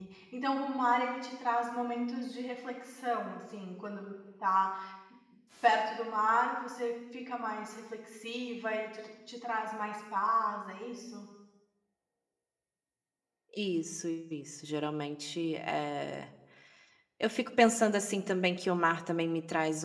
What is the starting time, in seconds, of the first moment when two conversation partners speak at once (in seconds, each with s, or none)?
none